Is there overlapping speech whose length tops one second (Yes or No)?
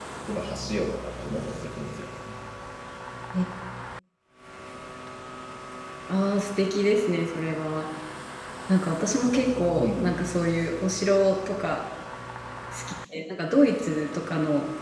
No